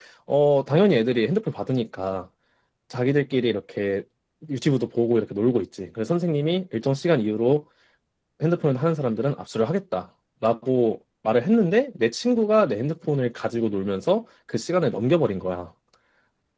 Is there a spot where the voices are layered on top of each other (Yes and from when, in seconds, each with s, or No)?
No